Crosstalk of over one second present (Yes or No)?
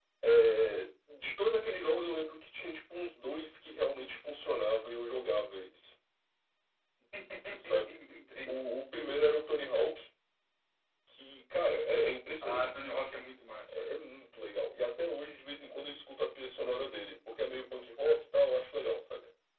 No